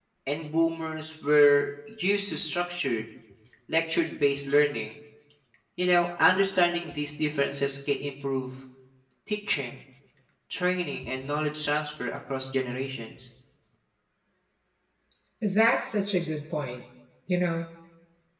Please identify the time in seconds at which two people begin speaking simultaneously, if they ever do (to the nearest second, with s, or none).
none